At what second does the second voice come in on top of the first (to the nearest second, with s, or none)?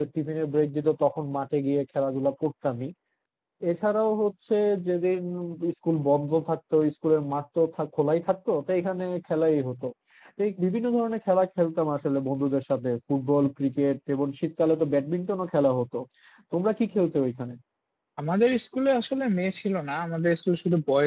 none